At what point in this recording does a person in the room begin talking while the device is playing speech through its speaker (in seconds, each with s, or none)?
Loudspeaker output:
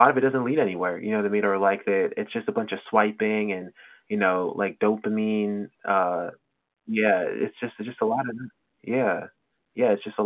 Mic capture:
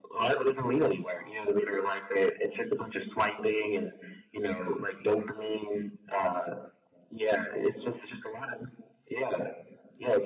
none